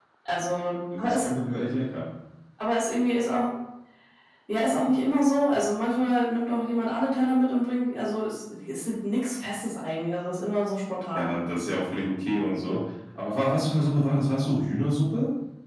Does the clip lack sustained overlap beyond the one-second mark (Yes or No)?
Yes